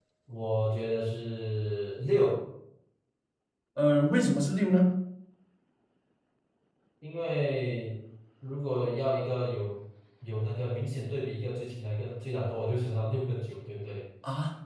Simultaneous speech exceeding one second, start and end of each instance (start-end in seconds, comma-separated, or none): none